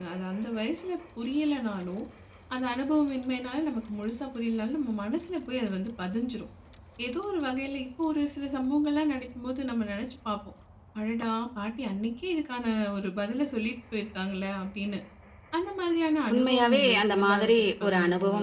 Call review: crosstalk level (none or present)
present